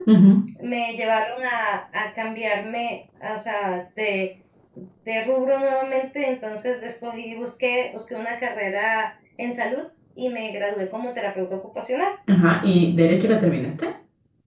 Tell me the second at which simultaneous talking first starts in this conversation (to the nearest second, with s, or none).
none